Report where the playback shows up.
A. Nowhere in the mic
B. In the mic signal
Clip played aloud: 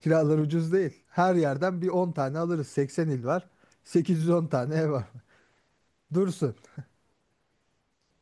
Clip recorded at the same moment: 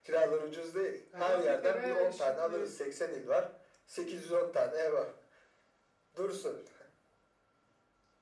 B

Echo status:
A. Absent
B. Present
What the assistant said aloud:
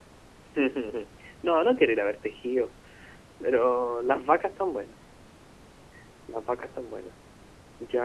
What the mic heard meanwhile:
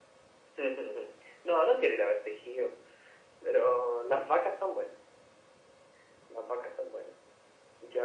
B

